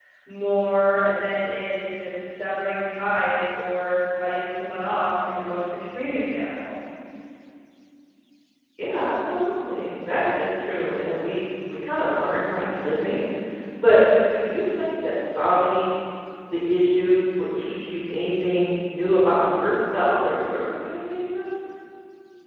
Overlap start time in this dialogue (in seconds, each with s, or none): none